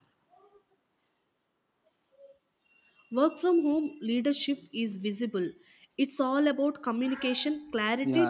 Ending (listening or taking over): taking over